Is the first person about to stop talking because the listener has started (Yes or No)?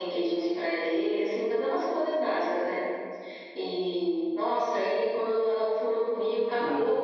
No